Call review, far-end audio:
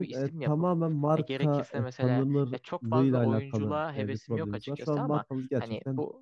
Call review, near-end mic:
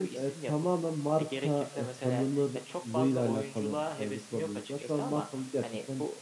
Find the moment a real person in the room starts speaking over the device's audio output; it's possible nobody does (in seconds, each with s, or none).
none